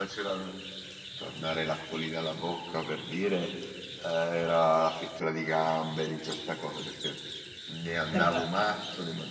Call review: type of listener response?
listening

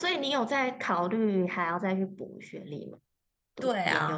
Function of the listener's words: taking over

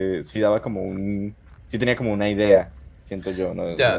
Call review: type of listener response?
taking over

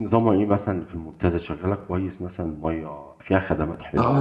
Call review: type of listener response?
taking over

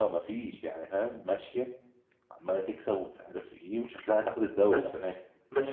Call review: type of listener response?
taking over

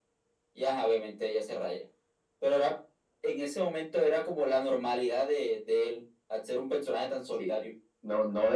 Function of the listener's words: taking over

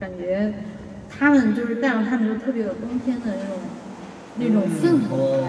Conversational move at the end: taking over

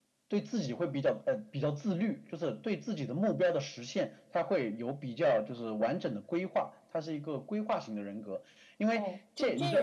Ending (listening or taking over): taking over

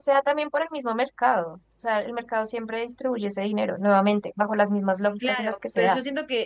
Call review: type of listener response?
taking over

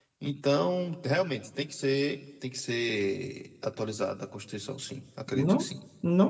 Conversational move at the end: taking over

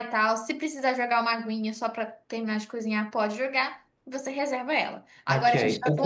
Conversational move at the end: taking over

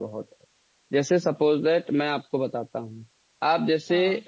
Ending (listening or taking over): listening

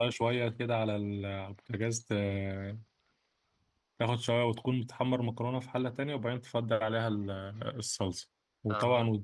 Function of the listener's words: listening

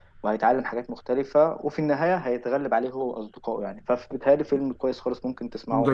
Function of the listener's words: taking over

